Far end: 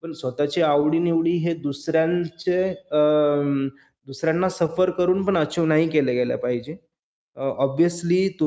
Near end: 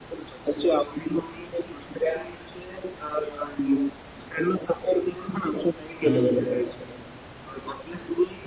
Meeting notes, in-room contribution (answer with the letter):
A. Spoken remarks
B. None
A